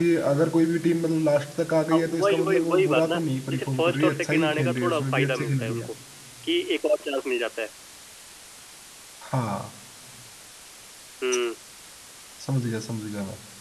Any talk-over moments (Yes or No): Yes